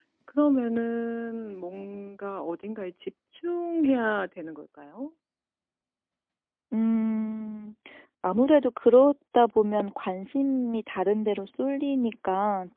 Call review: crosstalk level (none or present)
none